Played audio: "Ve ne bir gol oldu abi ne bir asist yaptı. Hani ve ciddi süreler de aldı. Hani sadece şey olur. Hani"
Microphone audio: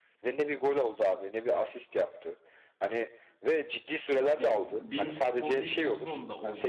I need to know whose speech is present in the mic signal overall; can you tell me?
both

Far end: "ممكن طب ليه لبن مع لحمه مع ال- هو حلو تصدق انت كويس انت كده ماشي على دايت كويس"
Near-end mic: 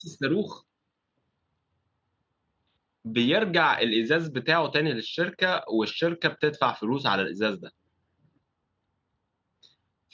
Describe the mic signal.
user only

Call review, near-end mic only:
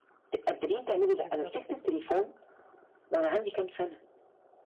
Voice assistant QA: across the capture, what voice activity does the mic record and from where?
both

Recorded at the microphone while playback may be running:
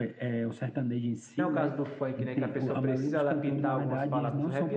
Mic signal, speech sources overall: both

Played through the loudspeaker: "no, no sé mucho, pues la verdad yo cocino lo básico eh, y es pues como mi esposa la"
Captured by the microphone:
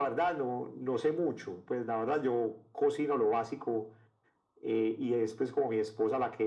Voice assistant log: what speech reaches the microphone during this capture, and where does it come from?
echo only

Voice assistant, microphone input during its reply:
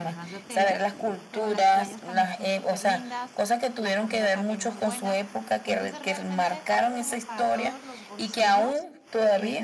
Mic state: both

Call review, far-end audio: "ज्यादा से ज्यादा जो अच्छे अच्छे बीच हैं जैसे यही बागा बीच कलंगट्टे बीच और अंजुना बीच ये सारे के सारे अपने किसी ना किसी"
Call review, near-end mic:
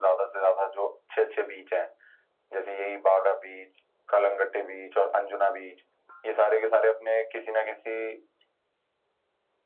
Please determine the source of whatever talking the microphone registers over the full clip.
echo only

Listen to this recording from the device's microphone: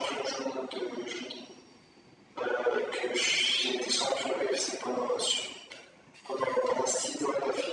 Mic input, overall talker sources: echo only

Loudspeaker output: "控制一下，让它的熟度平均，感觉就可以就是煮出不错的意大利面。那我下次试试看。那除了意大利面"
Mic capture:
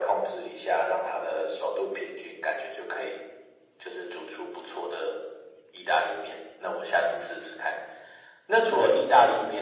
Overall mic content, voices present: echo only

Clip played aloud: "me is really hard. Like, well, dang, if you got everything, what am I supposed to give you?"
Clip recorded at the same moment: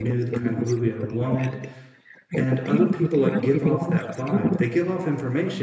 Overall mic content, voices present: both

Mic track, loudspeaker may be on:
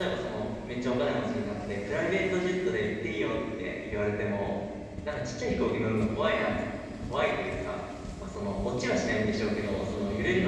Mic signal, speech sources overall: user only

